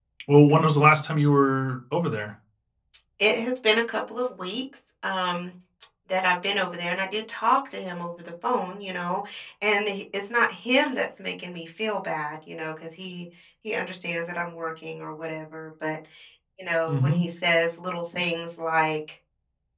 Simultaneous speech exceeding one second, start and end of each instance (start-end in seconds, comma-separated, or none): none